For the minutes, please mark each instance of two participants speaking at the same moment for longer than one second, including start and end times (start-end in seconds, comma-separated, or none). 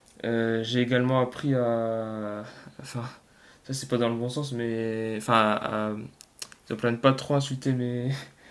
none